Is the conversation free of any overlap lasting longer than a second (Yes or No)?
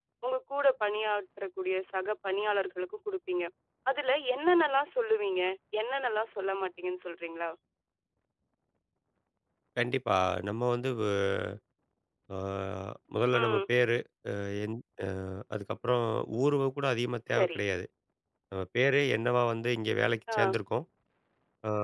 Yes